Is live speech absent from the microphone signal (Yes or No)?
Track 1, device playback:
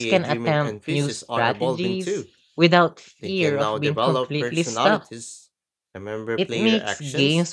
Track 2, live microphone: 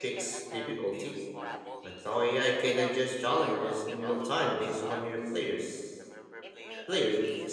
No